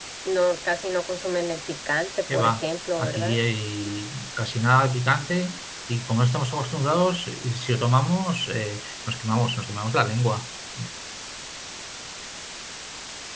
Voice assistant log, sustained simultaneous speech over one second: none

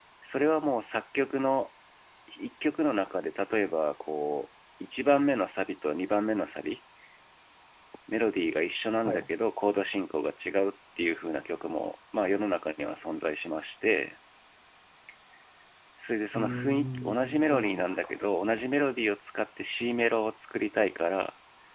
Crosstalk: present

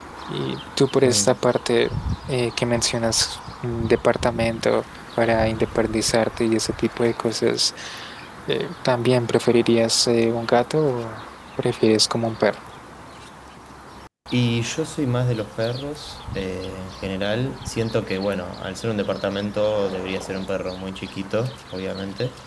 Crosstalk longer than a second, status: none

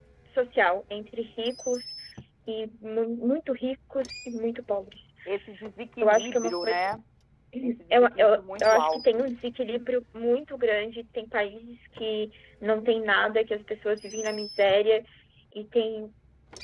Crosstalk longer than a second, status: present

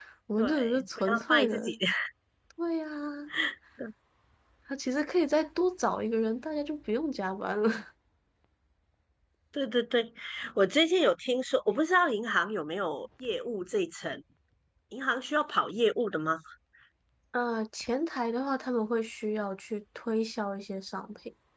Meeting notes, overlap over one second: present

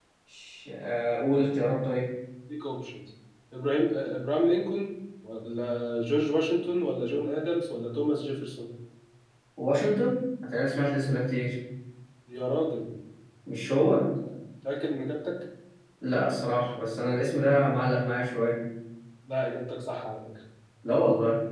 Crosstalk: none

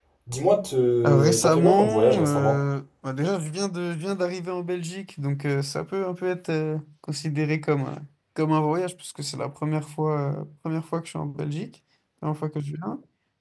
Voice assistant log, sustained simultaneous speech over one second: present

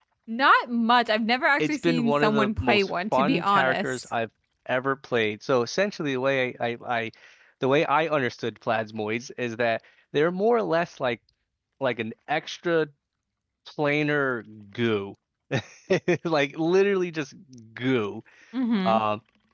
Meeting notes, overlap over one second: present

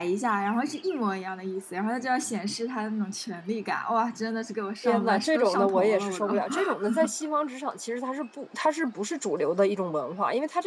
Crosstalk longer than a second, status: present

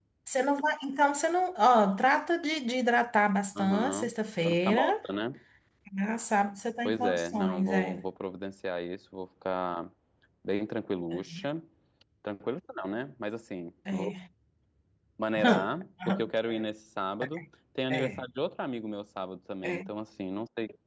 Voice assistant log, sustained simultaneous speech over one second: present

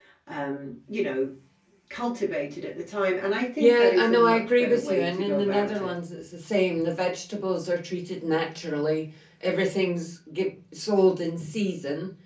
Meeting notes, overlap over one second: present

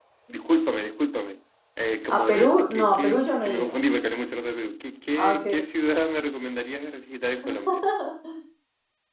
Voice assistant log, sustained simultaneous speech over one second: present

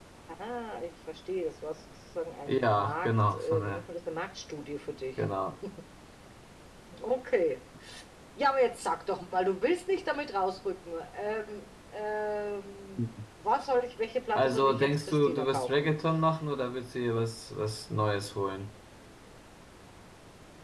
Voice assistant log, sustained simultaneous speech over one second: present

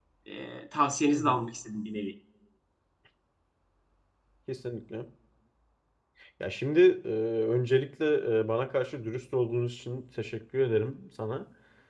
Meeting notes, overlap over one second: none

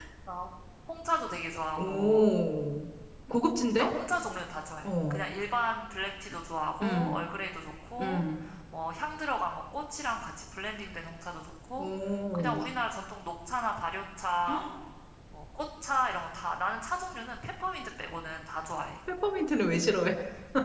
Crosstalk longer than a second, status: none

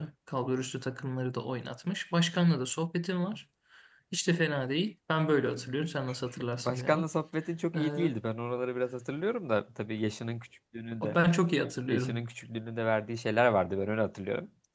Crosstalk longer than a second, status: none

